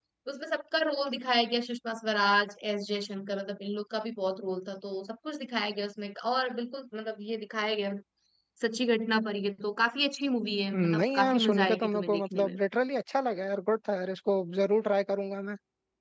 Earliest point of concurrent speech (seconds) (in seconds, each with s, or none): 10.7 s